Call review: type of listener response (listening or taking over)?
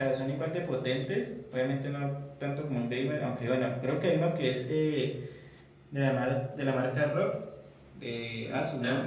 taking over